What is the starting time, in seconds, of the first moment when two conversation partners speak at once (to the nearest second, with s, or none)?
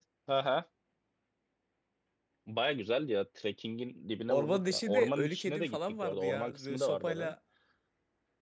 4 s